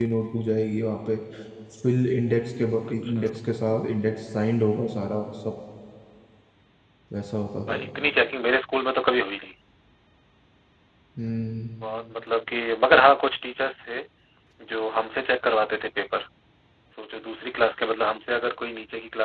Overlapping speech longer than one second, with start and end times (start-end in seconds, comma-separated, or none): none